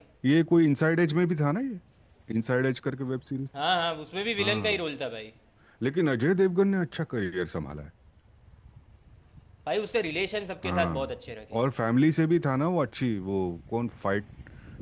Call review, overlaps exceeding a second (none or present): none